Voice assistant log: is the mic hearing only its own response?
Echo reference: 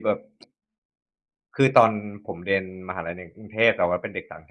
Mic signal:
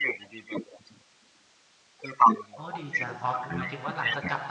No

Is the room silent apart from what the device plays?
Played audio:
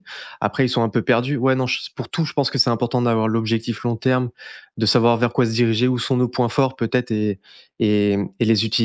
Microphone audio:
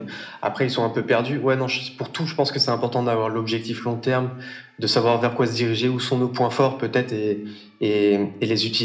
Yes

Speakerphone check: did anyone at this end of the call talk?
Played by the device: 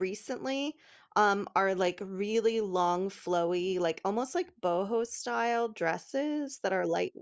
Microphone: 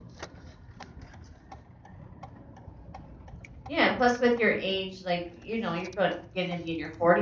Yes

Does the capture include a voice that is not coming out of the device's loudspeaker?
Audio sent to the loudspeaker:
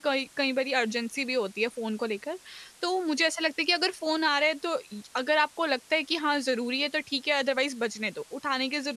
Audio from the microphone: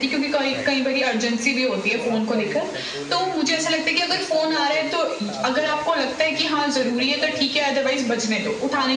Yes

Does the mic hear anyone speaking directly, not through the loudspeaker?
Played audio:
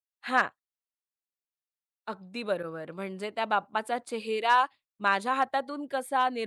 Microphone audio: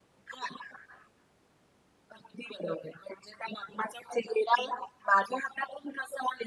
No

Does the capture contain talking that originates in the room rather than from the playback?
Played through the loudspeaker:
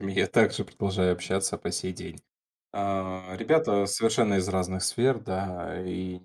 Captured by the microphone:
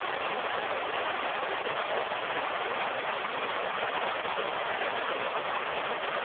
No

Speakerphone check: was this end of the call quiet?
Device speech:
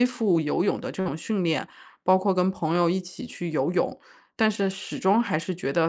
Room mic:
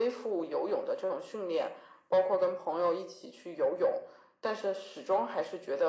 Yes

